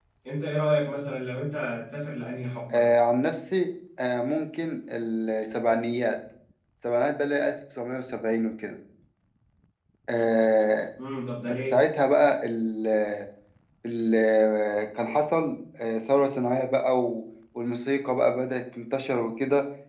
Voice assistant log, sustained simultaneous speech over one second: none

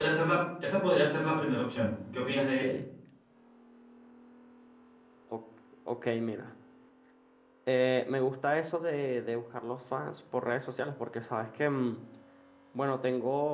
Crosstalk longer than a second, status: none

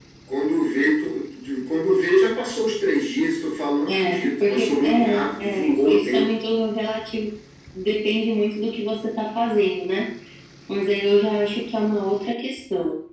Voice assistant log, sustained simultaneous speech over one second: present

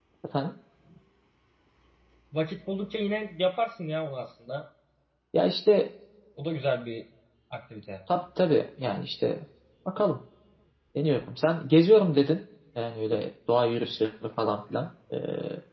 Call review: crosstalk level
none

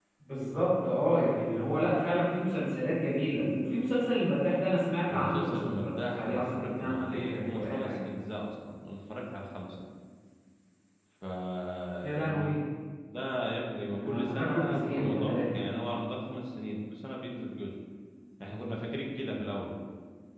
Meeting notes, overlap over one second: present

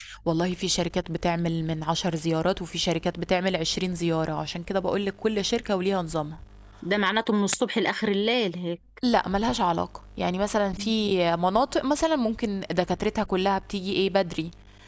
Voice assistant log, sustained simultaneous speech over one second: none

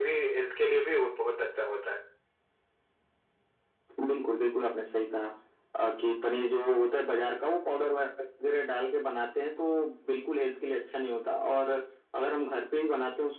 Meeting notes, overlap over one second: none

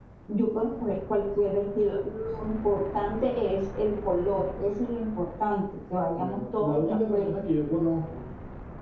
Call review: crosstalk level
present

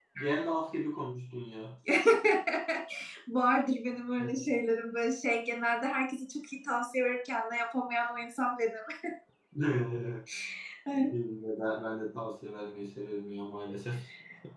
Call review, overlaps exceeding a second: none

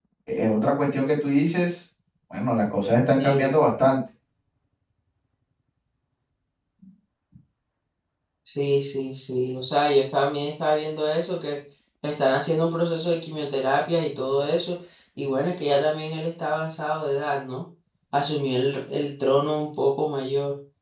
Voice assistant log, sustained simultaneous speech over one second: none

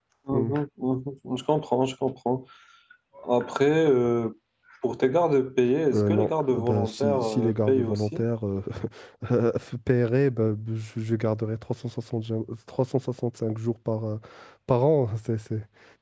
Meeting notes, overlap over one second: present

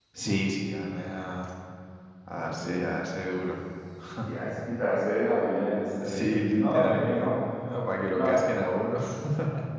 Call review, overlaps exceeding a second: present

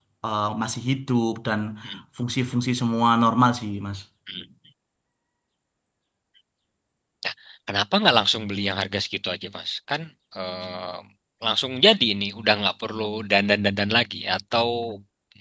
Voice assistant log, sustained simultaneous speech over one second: none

